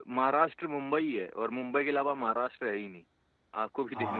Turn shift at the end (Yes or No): Yes